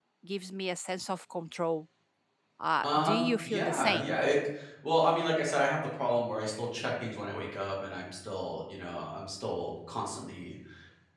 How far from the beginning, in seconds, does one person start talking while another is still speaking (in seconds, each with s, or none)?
2.8 s